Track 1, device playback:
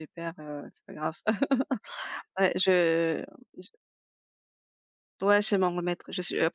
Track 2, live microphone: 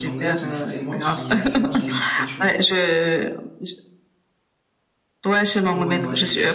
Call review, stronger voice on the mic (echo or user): echo